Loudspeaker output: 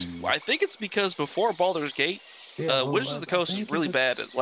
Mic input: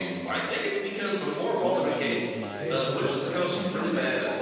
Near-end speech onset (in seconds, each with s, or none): 1.6 s